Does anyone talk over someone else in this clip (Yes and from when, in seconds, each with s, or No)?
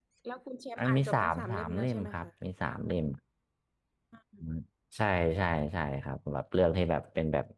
Yes, from 0.8 s